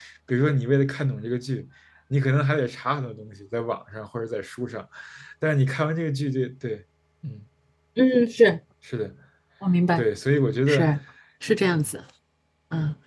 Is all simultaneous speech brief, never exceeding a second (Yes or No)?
Yes